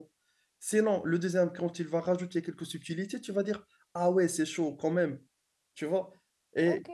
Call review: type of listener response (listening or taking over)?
taking over